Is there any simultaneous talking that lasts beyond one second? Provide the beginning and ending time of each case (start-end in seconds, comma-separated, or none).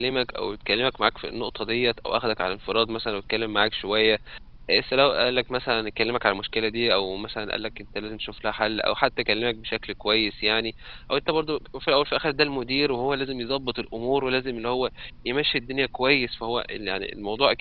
none